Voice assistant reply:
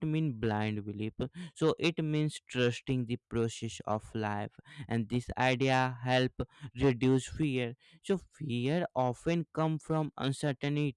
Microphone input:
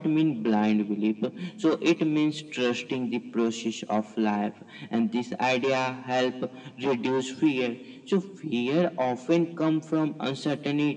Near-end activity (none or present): none